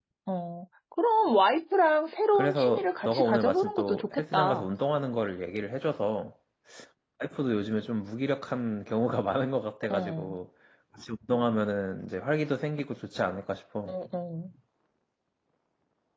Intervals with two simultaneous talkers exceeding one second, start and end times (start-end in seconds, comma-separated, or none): 2.4-4.7